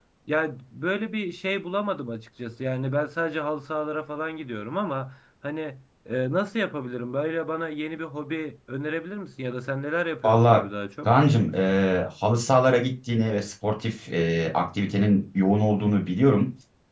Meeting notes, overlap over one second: none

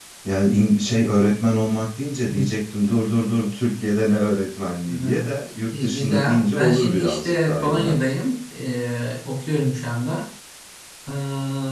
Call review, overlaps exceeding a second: present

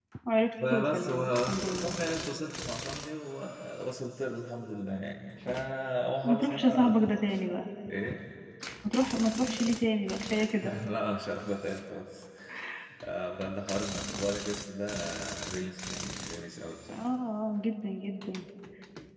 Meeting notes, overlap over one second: present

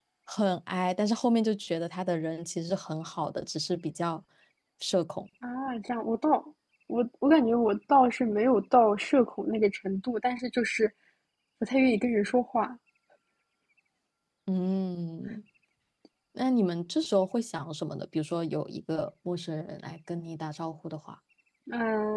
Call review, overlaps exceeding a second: none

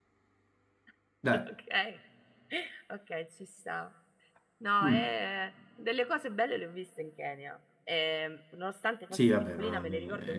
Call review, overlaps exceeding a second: present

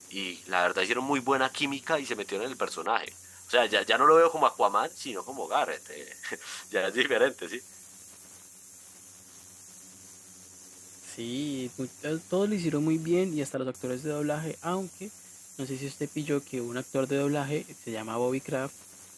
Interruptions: none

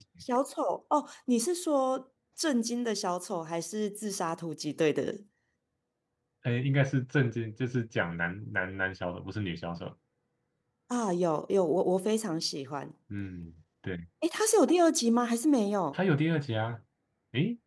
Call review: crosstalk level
none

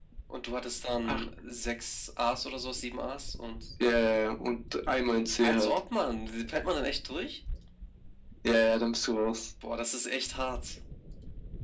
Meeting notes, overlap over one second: none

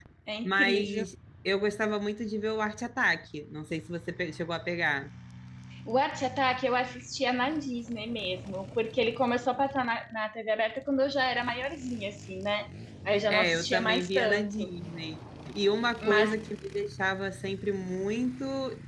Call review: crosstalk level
present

